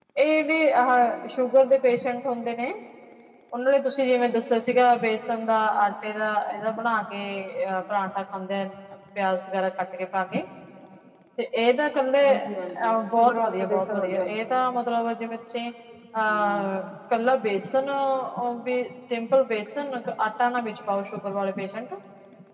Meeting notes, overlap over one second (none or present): present